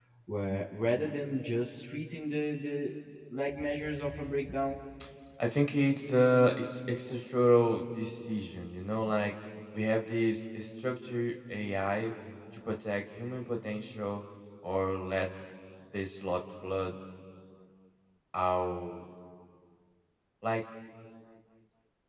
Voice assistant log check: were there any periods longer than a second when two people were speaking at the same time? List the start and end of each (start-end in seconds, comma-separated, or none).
none